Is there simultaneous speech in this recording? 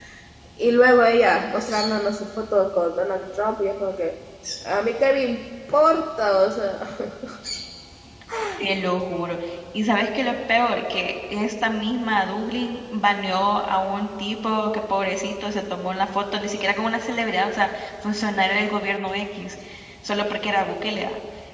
No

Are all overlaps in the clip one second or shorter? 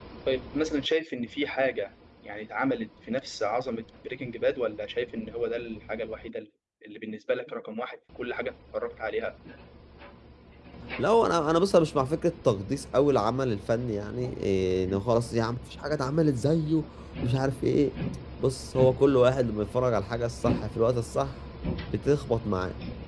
Yes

